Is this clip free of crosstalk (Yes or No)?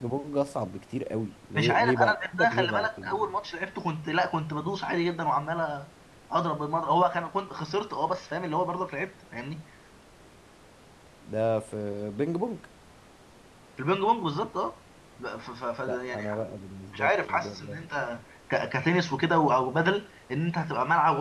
No